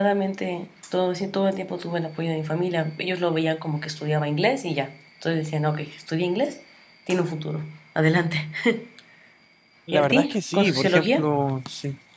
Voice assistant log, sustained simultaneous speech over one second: present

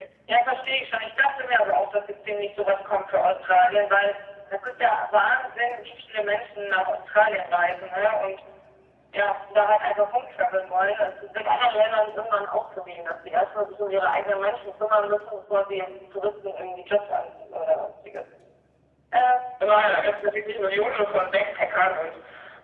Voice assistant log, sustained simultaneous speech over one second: none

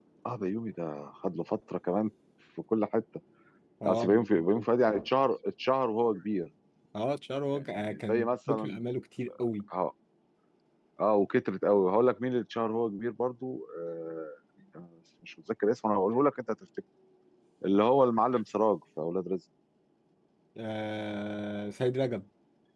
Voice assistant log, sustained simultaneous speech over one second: present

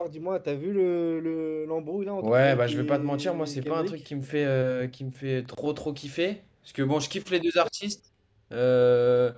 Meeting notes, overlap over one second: present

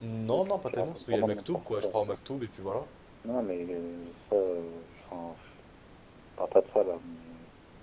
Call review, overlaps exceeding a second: present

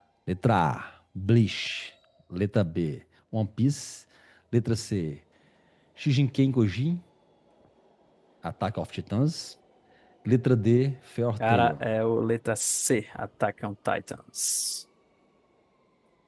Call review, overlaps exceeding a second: none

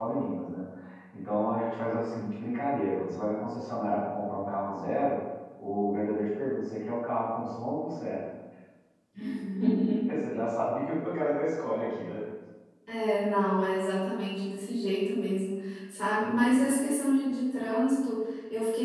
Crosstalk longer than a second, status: none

